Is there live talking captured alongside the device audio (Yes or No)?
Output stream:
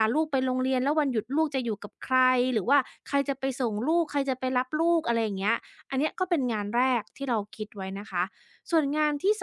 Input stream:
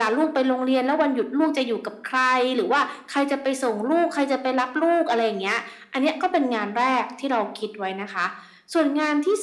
No